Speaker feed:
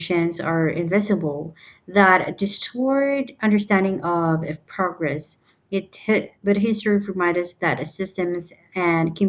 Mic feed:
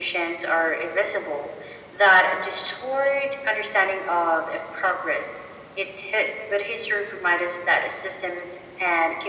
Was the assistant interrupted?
No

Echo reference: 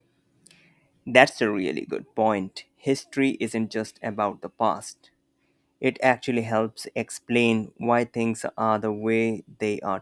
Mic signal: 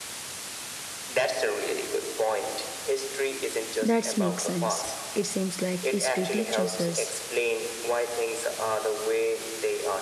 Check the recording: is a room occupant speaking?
Yes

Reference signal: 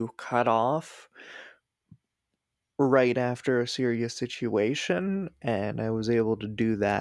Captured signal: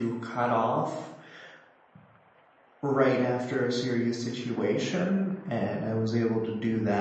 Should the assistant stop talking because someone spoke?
No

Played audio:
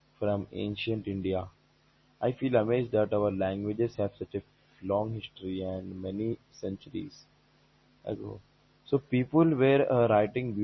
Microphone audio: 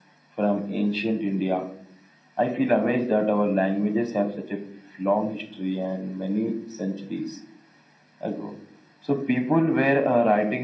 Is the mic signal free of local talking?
Yes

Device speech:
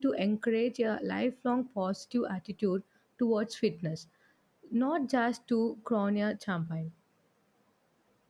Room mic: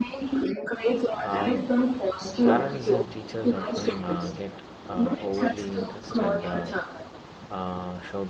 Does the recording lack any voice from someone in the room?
No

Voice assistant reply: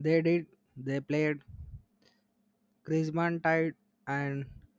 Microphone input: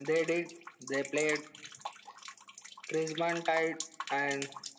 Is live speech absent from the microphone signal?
Yes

